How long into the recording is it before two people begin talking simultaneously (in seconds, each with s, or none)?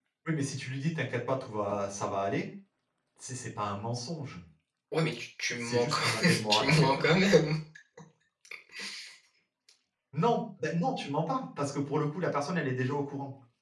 5.6 s